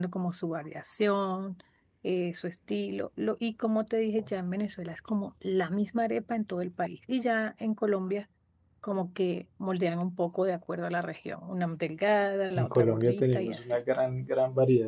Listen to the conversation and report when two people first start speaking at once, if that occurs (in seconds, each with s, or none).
12.5 s